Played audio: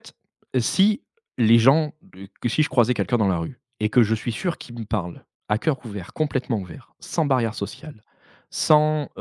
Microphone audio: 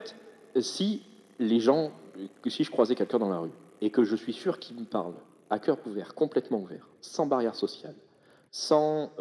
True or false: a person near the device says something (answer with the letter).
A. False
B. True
A